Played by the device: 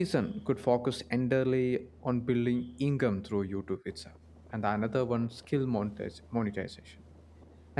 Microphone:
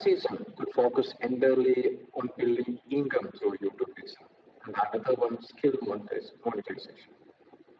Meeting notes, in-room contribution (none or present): none